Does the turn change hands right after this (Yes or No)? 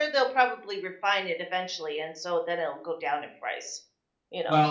Yes